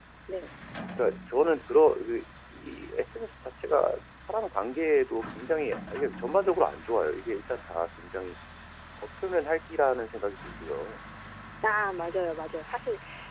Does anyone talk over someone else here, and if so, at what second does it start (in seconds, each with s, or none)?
none